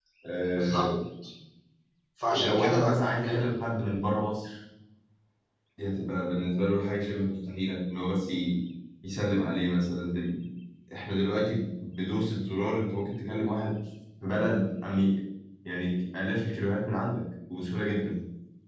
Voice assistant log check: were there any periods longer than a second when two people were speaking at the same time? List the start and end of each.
2.3-3.5

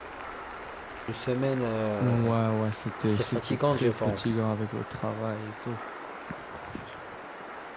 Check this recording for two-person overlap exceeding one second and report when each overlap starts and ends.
3.0-4.4

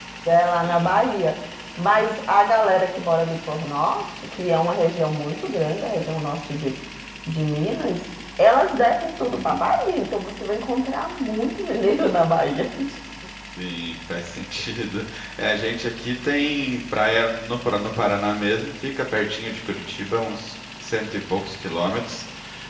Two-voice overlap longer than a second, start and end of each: none

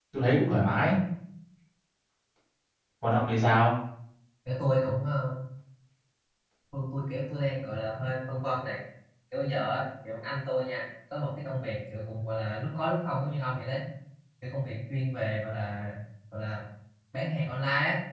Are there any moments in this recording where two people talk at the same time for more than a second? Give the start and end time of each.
none

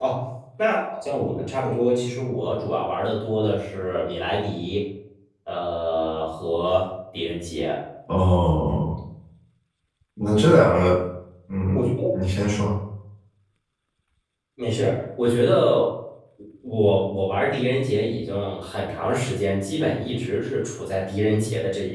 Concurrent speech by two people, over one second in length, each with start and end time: none

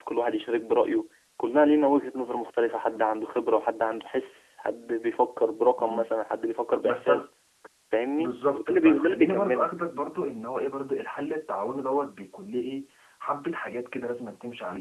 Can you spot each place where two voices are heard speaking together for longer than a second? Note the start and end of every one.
8.2-9.7

